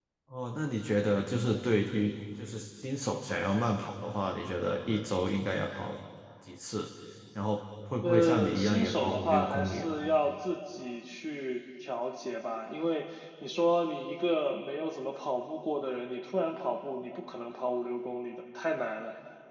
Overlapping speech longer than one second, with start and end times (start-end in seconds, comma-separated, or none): 8.0-9.9